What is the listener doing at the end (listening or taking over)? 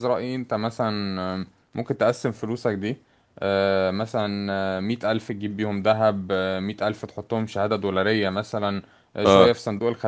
listening